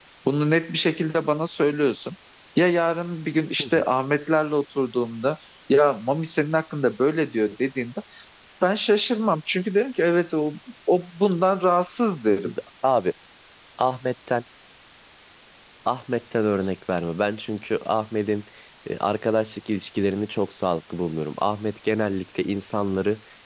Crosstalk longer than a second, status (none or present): none